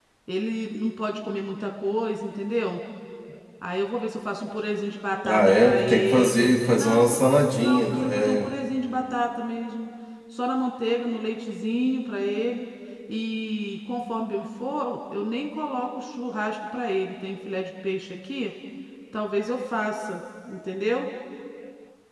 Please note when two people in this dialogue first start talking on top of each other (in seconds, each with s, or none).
5.2 s